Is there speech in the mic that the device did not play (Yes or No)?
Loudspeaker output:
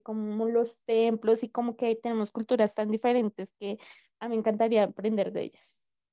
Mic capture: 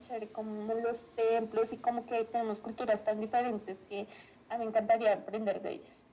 No